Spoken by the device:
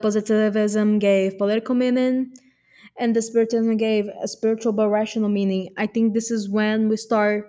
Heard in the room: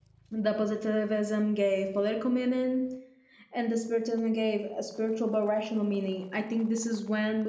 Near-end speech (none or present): none